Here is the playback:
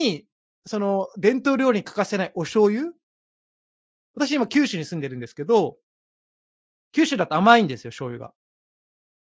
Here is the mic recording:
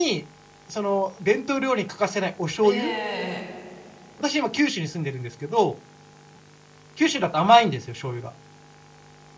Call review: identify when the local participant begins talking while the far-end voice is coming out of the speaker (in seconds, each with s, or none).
2.6 s